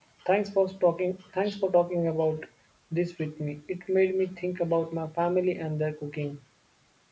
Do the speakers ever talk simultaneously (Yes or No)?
No